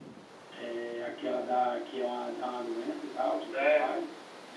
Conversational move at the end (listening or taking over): taking over